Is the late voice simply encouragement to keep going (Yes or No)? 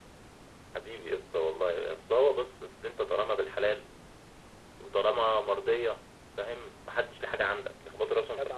No